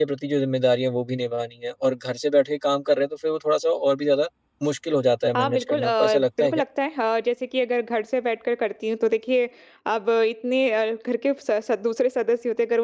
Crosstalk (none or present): present